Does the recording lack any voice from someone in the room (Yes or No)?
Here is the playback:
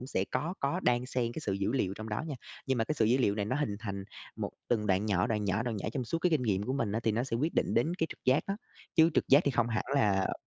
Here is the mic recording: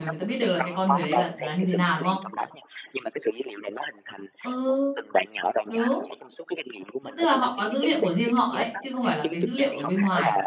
No